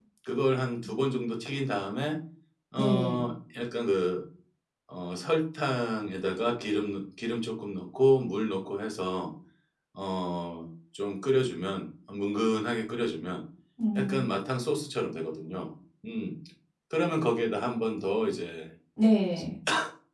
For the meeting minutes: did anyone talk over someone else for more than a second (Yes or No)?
No